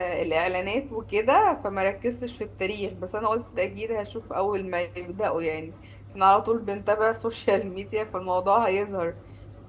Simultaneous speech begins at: none

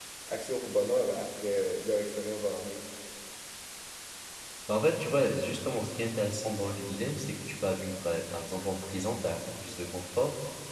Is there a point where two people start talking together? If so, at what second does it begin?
none

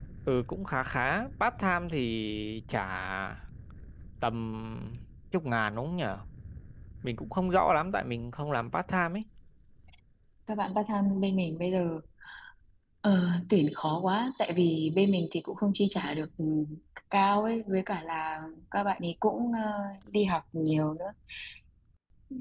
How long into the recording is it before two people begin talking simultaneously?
none

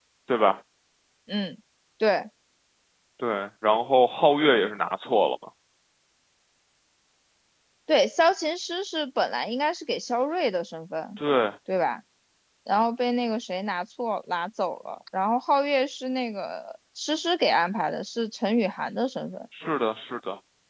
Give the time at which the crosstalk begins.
none

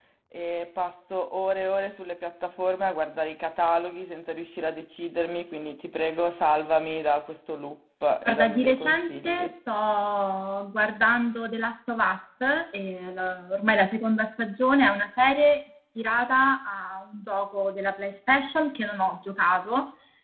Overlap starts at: 8.2 s

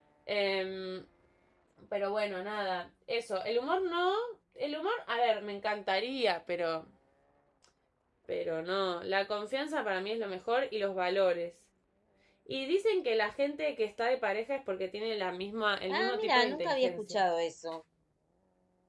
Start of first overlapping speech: 15.9 s

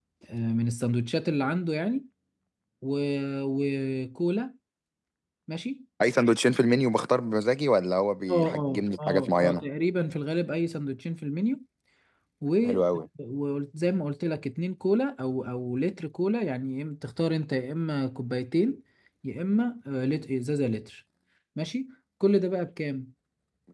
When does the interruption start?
8.3 s

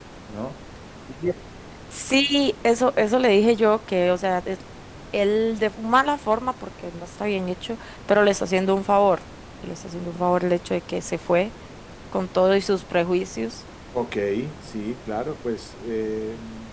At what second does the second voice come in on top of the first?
none

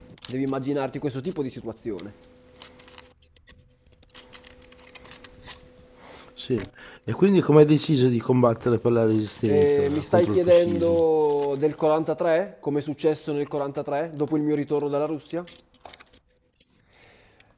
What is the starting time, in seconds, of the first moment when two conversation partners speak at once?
9.5 s

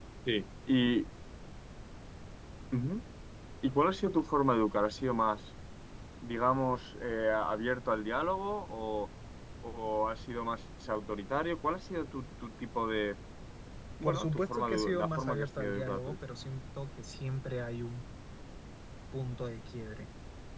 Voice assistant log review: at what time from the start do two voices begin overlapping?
14.0 s

